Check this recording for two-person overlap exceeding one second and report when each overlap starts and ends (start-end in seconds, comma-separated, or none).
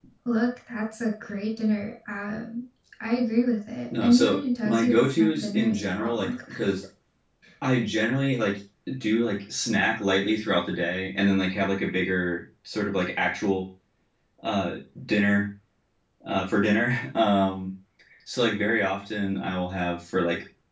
4.0-6.3